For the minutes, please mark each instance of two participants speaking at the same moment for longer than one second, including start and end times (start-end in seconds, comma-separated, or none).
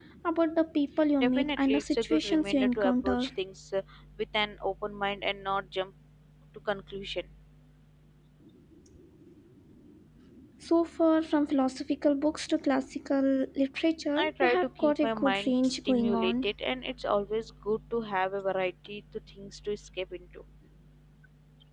1.2-3.3, 14.2-16.5